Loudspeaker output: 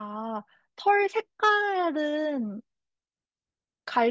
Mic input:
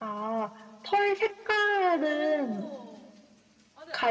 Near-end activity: present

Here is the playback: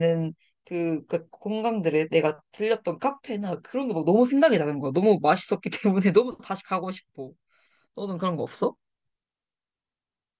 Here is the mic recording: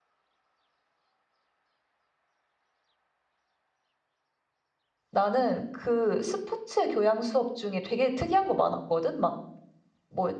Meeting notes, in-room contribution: present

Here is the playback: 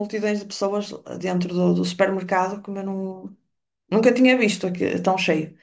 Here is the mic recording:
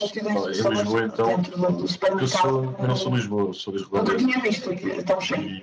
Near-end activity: present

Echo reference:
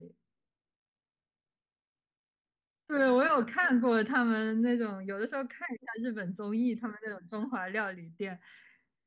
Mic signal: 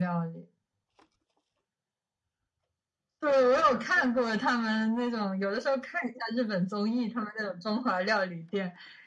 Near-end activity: none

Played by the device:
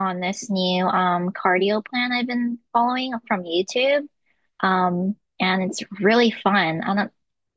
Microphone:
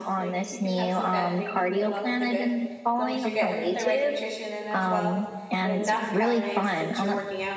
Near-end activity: present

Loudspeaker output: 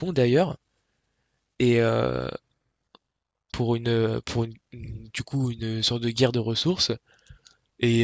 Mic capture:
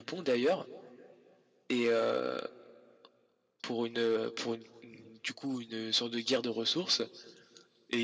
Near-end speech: none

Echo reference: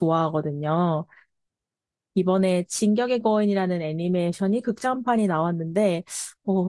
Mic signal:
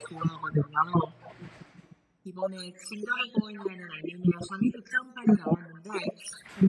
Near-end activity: none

